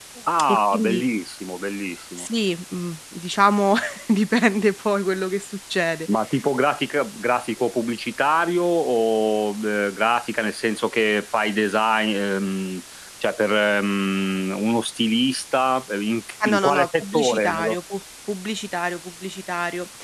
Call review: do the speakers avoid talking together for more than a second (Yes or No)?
No